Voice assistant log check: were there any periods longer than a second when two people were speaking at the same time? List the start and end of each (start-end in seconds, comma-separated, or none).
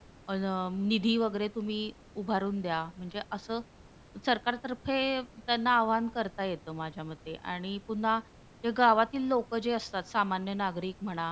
none